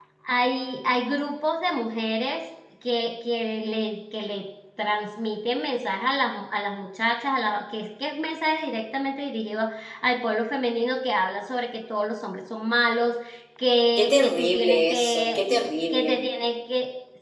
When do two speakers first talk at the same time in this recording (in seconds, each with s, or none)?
14.0 s